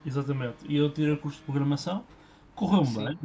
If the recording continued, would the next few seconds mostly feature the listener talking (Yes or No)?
No